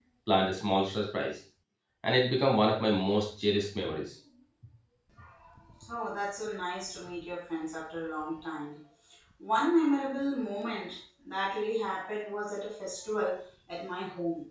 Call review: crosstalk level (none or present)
none